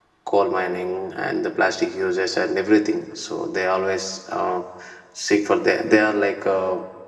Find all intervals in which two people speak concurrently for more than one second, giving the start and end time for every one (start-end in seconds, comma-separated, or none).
none